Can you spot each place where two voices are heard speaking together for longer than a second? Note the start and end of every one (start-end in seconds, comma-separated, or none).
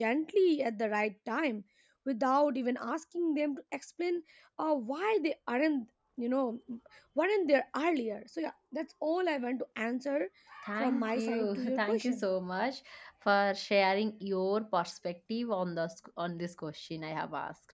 10.8-12.2